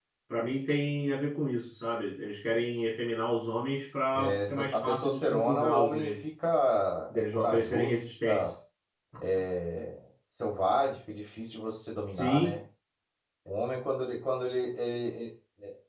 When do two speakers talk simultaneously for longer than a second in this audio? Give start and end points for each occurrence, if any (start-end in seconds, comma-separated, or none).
4.2-6.1, 7.1-8.5